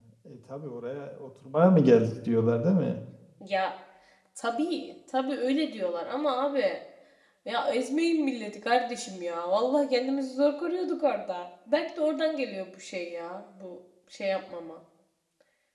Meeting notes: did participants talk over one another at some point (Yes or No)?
No